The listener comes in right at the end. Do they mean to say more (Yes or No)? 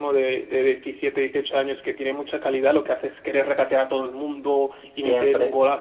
No